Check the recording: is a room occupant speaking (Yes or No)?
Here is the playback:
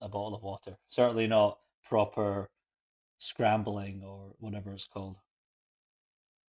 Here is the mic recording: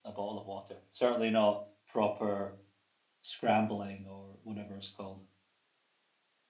No